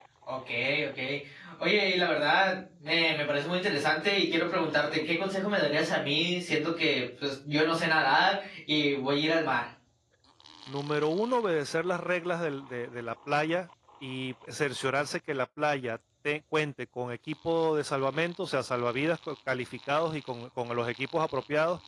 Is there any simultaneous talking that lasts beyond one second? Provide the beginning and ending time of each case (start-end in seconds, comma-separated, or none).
none